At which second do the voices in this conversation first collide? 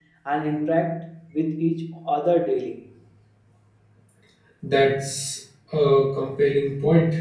none

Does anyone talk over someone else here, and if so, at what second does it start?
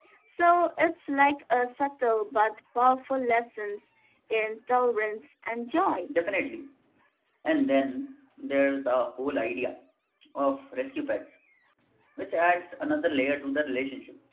none

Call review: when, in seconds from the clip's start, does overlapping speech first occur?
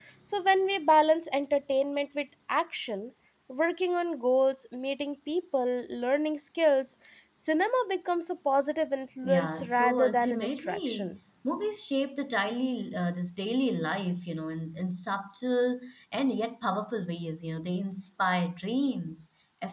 9.2 s

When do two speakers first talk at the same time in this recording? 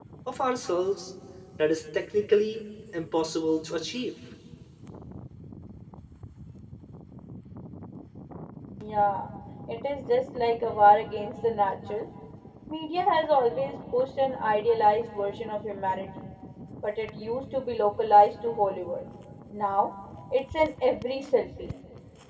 none

